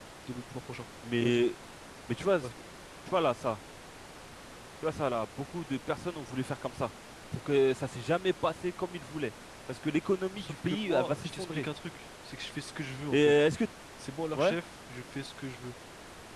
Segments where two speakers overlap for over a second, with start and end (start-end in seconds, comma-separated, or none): 10.4-11.6